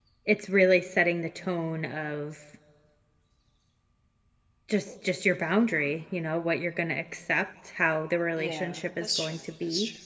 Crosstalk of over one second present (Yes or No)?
Yes